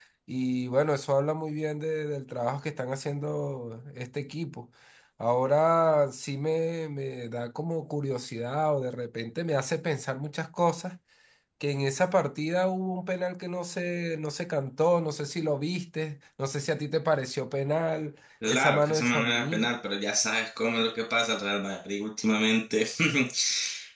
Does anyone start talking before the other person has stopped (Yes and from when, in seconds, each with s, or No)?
Yes, from 18.4 s